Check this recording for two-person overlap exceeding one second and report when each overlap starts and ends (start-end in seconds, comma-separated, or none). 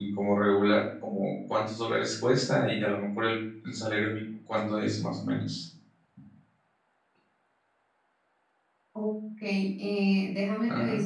none